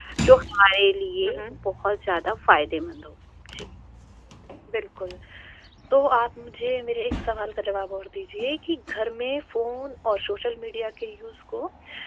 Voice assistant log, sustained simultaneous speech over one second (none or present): none